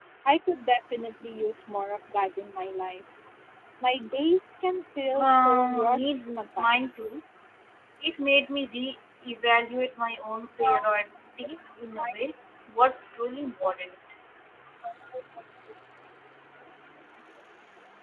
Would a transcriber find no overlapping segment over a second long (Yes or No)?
No